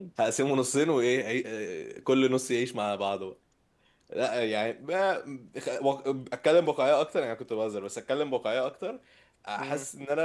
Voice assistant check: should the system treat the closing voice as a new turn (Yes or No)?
No